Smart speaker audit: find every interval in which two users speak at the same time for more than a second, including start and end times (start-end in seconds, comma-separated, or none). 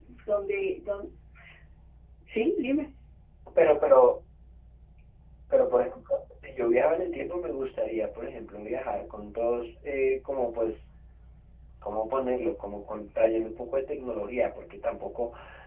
none